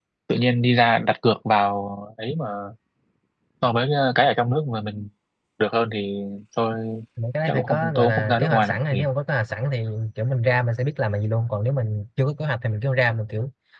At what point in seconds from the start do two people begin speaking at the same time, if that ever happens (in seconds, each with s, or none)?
7.5 s